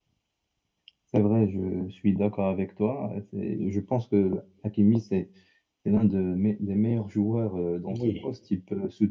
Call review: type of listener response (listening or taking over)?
listening